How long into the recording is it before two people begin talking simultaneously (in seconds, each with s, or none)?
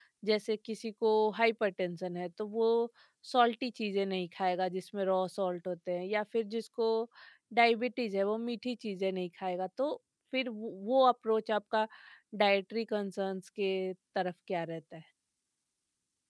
none